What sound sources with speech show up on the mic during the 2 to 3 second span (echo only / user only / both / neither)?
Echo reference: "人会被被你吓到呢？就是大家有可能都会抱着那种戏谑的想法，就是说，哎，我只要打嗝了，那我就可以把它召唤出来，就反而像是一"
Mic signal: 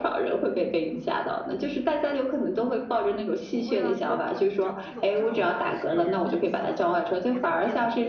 echo only